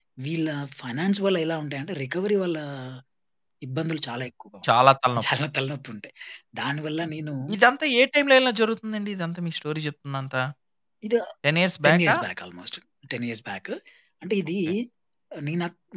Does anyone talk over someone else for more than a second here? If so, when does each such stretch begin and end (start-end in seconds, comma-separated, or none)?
none